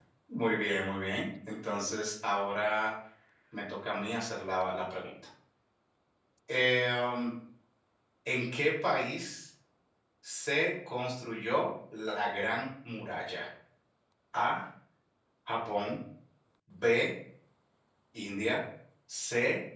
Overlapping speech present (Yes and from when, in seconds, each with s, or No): No